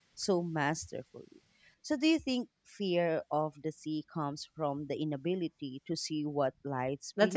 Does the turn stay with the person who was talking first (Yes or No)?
No